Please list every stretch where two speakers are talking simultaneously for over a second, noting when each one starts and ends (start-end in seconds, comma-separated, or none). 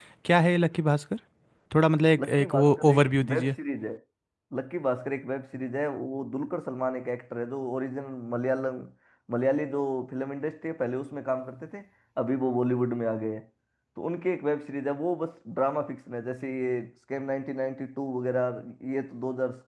2.2-3.5